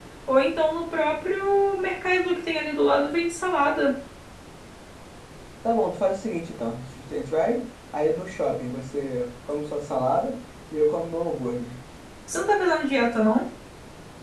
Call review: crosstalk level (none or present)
none